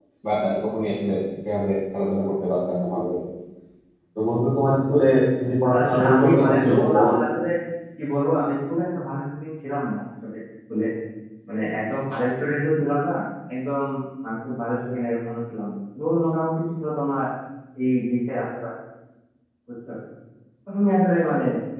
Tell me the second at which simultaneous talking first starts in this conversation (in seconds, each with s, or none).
5.7 s